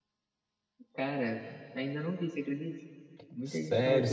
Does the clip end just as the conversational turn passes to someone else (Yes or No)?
Yes